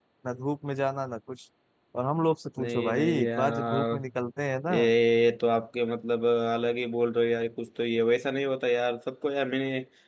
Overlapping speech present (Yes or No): Yes